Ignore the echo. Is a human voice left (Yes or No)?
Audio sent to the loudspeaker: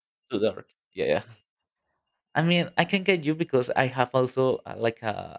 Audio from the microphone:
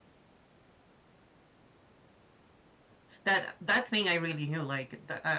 Yes